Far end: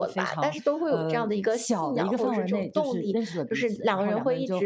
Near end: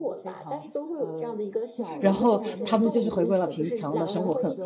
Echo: present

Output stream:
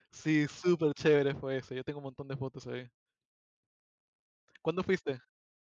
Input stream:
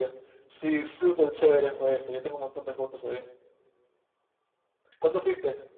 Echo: present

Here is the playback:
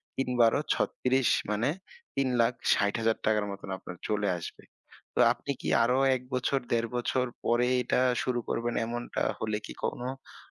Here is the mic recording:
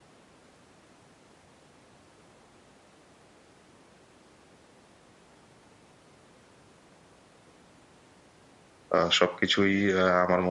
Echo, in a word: none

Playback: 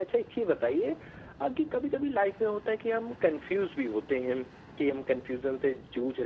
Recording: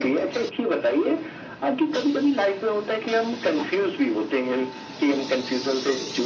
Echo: present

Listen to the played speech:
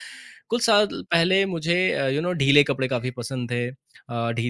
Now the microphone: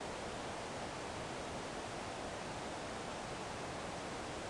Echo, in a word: none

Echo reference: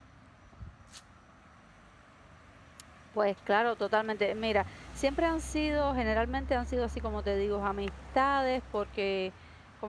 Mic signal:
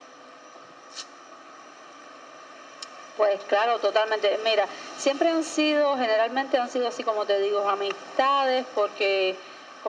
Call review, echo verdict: present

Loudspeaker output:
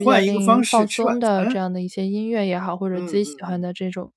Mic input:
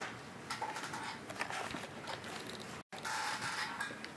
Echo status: none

